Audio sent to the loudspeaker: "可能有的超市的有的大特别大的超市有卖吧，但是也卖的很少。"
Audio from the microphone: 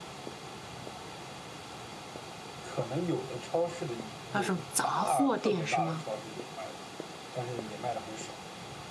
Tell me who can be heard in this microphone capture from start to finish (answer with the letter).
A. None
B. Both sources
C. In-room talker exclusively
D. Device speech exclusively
B